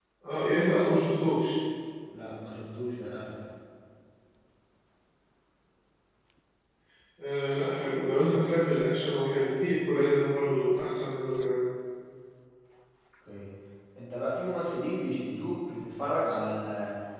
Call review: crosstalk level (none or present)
none